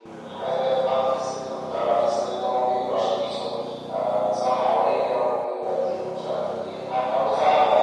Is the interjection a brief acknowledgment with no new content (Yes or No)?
No